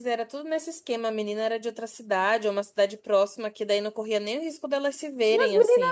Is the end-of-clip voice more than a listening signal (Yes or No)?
Yes